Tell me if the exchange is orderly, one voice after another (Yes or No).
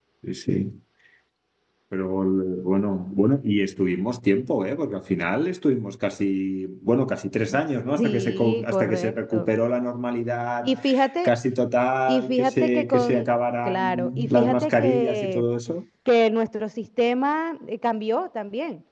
No